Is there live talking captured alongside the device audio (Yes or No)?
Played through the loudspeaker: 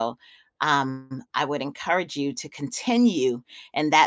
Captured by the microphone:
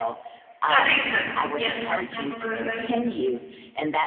Yes